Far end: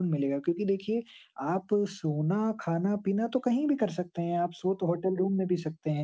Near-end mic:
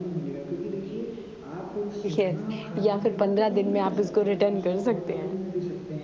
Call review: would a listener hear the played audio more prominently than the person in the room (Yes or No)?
No